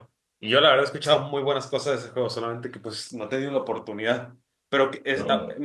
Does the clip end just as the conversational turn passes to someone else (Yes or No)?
No